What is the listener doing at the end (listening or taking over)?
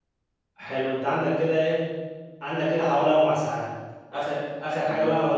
listening